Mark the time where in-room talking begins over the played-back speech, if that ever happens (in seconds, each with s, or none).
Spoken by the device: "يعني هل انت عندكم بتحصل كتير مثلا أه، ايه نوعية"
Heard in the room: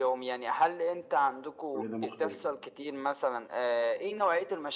1.7 s